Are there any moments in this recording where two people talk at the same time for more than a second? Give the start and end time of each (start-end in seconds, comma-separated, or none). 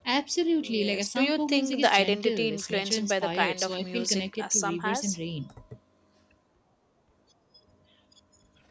0.6-5.2